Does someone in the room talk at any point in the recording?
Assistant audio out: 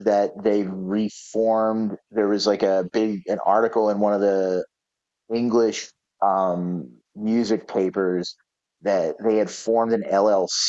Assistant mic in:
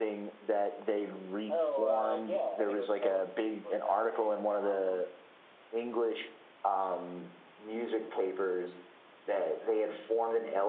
Yes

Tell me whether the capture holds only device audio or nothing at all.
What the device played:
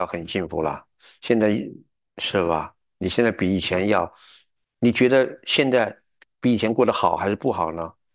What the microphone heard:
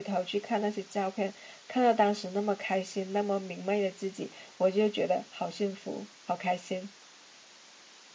No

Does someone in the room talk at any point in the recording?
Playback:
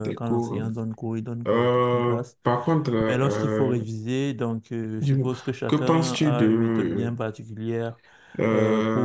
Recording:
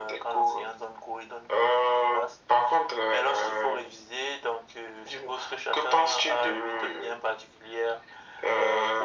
No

